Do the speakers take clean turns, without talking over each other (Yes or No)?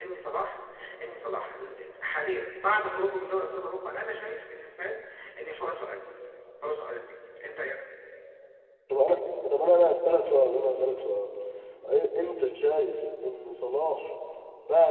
Yes